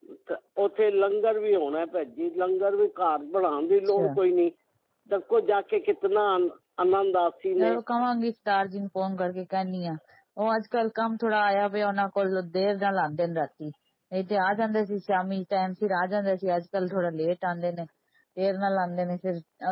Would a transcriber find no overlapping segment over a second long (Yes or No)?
Yes